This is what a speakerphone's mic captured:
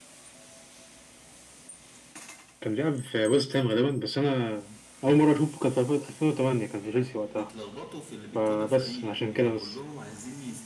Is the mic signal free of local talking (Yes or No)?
No